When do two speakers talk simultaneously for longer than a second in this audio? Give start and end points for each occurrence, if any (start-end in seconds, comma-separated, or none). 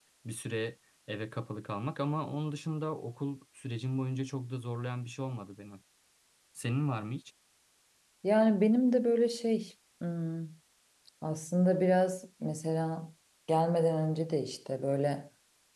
none